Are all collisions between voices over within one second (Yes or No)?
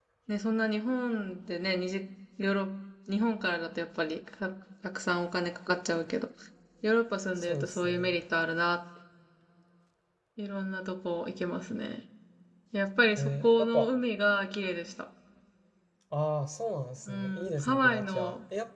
No